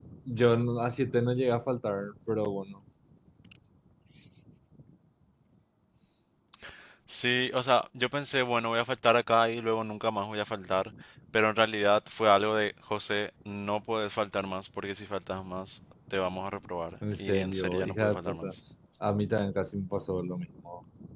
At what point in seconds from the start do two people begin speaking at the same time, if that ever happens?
17 s

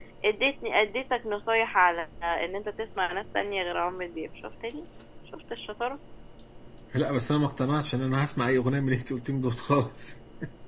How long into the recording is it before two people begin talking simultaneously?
none

